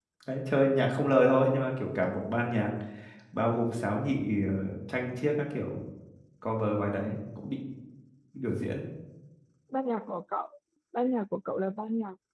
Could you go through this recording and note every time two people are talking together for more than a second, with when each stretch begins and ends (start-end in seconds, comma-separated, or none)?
none